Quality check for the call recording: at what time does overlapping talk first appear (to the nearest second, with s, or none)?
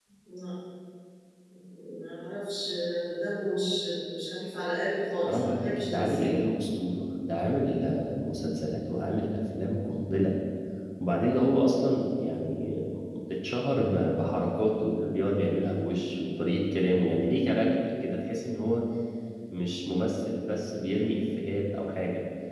5 s